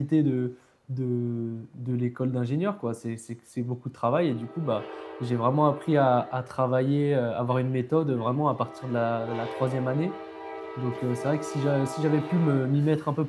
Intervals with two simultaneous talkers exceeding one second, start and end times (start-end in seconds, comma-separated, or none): none